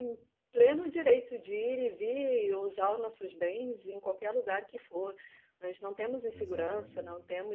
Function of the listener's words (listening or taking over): listening